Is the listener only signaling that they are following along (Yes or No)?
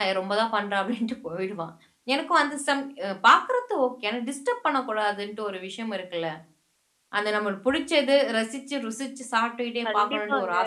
No